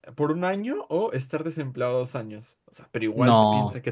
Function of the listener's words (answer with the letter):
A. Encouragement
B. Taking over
A